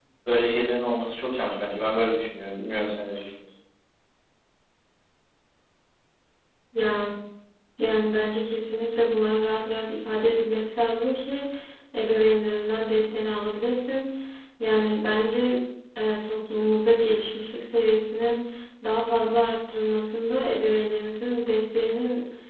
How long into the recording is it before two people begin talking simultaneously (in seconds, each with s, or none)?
none